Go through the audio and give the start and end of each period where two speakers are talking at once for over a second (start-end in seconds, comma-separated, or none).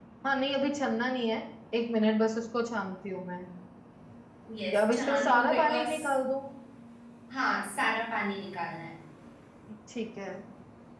4.7-6.0